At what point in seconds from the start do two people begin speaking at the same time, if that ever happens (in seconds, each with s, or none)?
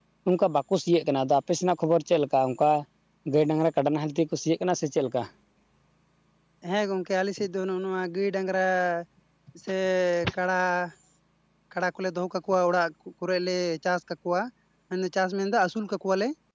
none